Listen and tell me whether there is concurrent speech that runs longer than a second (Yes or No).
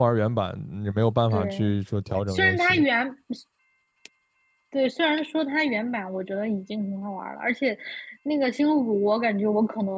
No